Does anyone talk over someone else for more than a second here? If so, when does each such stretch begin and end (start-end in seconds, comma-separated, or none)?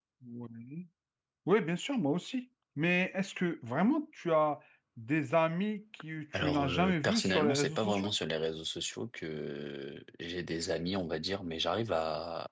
6.3-8.1